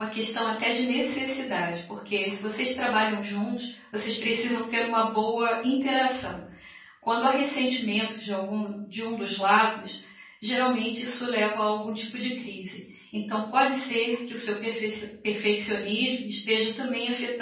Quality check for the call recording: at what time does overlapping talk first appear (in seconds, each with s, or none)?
none